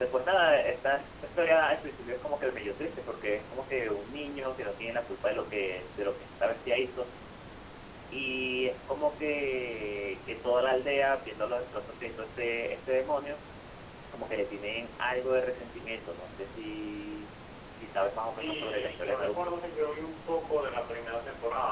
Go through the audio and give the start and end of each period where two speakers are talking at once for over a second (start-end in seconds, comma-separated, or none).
18.1-19.4